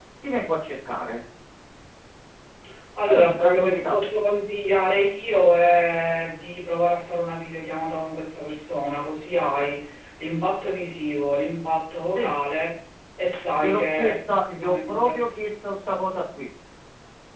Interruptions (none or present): present